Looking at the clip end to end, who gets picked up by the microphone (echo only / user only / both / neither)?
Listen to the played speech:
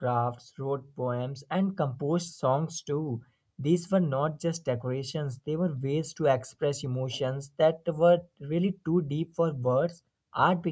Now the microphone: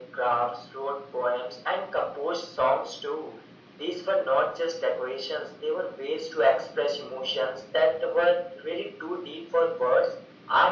echo only